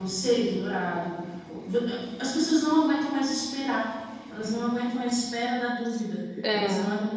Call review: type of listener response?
listening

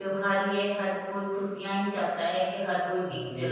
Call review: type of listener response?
taking over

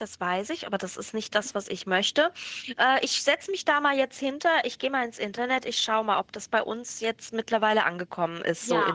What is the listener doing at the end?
taking over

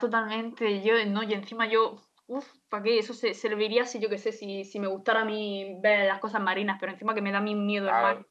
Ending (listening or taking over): taking over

